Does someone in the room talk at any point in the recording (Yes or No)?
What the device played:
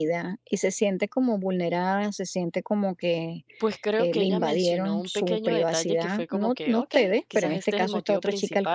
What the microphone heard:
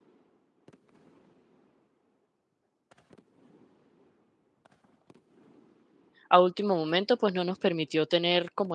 Yes